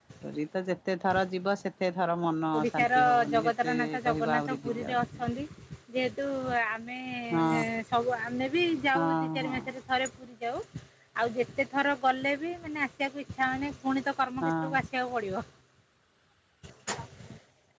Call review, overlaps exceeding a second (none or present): present